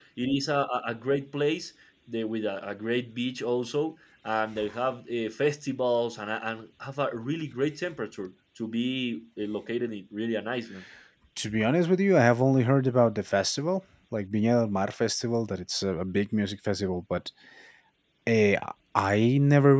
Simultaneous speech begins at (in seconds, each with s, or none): none